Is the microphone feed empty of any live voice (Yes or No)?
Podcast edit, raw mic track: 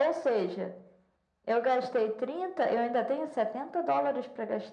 Yes